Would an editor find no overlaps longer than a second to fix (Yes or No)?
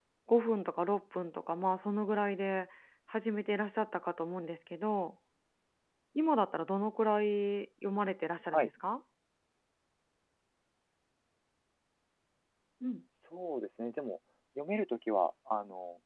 Yes